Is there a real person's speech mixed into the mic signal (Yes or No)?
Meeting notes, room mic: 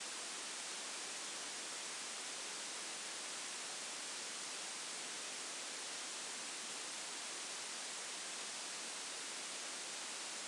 No